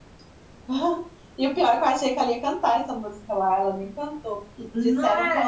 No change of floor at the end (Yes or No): Yes